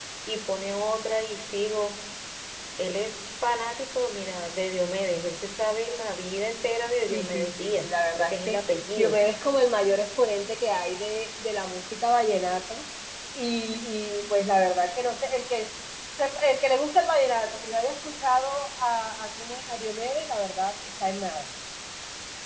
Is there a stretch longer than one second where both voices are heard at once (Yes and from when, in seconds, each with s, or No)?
Yes, from 7.1 s